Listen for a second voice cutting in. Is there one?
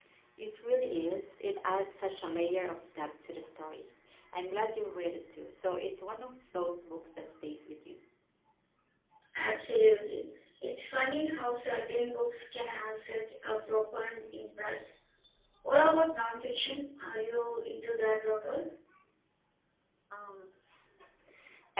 No

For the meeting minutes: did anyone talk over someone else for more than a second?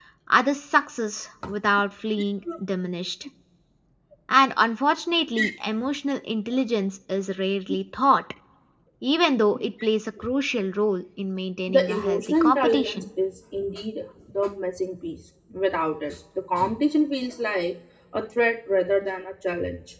Yes, from 11.7 s

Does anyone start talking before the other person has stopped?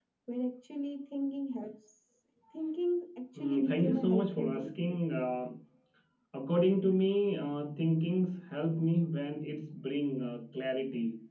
Yes, from 3.4 s

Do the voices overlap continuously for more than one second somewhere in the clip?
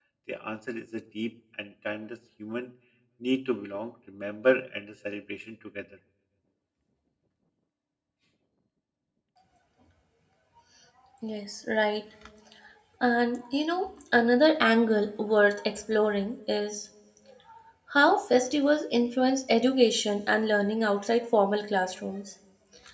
No

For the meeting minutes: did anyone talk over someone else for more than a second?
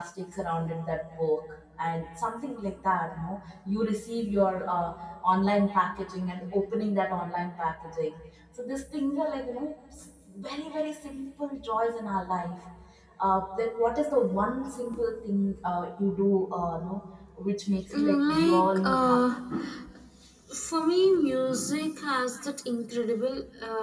Yes, from 17.9 s

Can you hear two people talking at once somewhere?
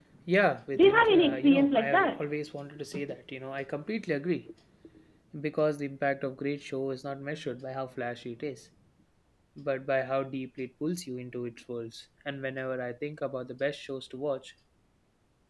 Yes, from 0.8 s

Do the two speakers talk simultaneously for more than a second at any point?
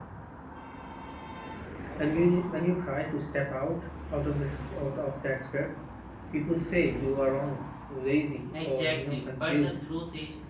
Yes, from 8.5 s

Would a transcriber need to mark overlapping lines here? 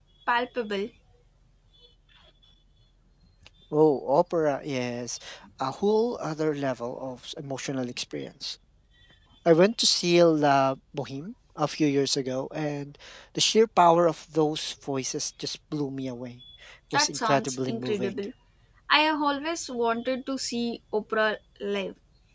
Yes, from 16.9 s

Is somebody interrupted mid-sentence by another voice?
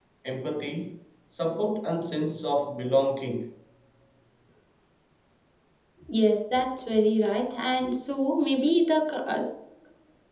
No

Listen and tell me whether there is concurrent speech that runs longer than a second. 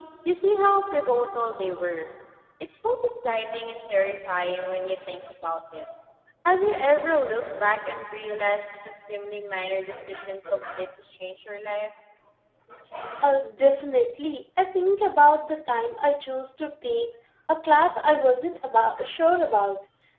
No

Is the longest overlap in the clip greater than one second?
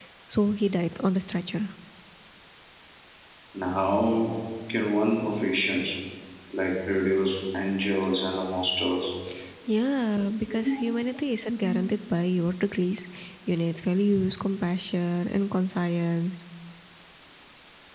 No

